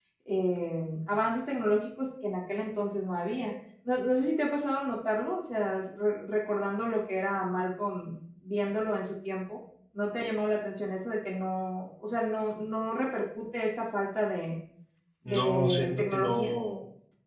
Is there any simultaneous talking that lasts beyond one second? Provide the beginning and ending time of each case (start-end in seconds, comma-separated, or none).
15.3-16.5